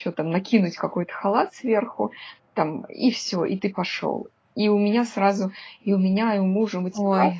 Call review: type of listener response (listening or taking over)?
listening